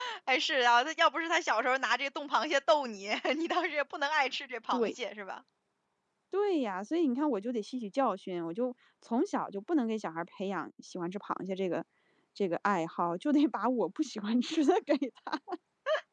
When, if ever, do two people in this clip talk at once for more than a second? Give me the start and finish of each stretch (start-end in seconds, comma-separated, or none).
none